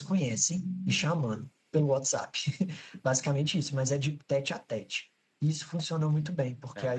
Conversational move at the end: listening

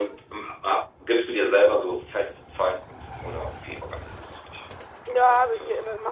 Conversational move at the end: taking over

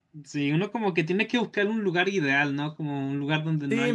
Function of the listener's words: taking over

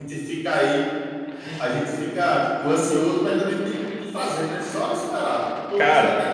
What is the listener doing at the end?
listening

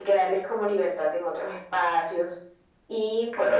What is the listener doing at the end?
taking over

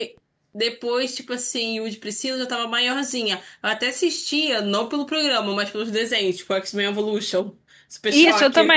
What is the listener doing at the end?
taking over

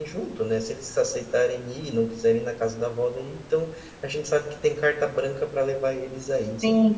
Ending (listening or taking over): taking over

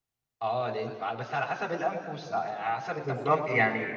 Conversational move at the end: taking over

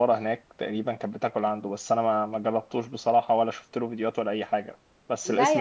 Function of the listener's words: taking over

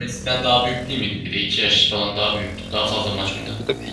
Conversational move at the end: taking over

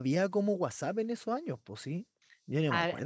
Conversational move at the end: taking over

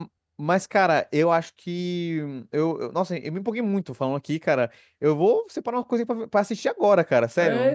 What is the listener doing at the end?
taking over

